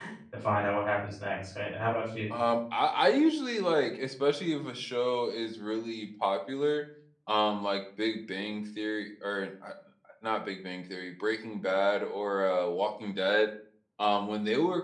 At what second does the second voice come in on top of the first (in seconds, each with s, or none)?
none